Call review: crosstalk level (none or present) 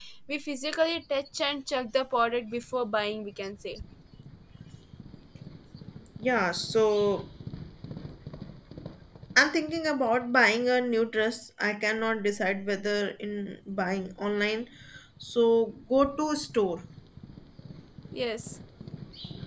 none